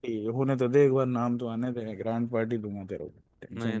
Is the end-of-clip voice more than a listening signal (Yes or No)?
Yes